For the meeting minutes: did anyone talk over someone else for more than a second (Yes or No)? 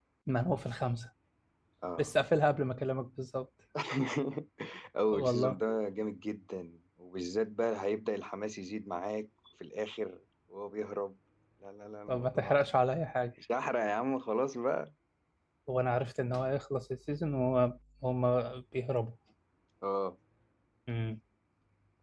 No